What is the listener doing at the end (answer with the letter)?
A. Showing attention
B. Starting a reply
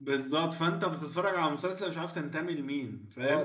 B